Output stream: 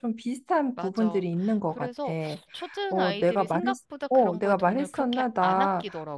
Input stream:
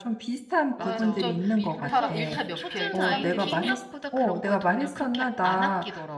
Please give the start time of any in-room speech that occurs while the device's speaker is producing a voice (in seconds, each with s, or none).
0.8 s